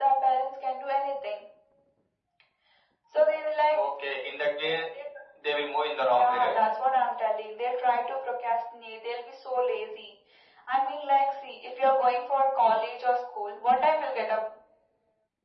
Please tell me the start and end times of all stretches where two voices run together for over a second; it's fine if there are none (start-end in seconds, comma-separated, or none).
none